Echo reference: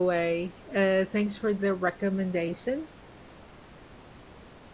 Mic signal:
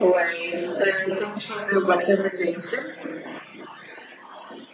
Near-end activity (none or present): none